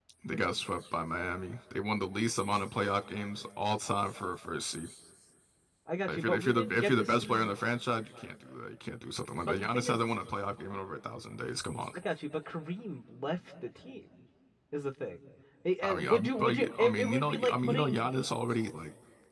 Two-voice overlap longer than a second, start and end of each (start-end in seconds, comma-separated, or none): 6.1-7.6, 15.8-18.1